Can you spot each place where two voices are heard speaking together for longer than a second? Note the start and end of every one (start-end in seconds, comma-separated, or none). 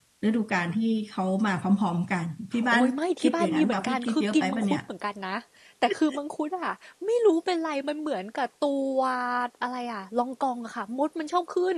3.2-4.8